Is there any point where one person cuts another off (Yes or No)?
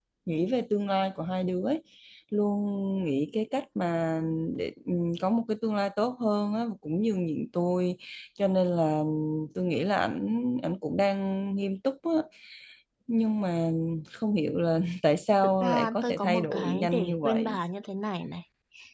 Yes